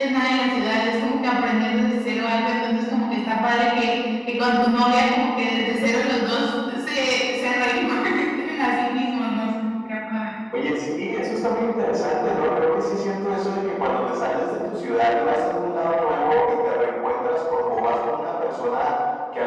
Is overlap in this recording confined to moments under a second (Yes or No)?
Yes